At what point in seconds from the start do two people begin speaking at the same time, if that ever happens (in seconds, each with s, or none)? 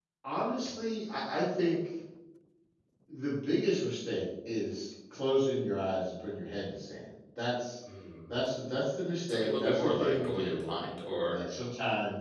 9.3 s